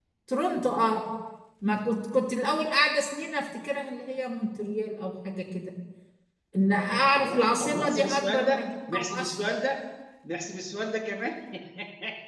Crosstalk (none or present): present